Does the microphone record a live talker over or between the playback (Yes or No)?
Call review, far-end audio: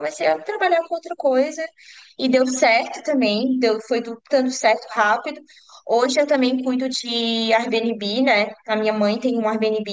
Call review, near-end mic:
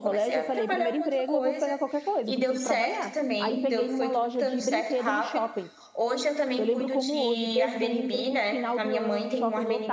Yes